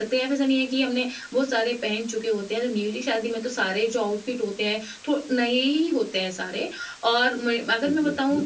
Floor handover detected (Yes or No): No